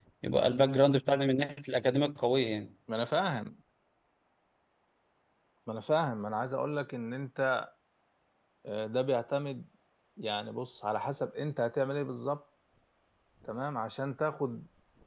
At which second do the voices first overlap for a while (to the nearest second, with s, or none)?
none